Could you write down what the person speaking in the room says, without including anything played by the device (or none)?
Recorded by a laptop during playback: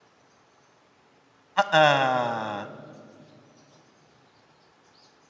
Heeh.